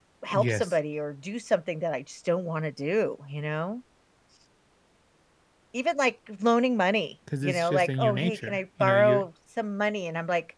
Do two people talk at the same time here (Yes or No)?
Yes